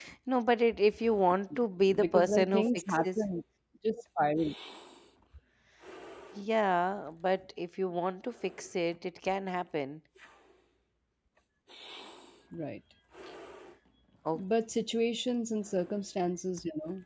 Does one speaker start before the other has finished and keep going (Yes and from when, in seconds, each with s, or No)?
Yes, from 1.9 s